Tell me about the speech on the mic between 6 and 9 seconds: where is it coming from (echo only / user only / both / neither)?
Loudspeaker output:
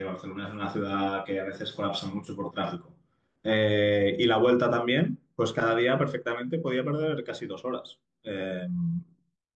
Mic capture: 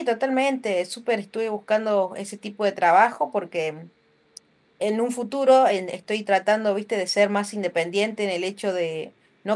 user only